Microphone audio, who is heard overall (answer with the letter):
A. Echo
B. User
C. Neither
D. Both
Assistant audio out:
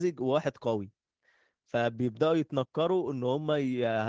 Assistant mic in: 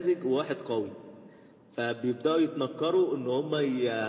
A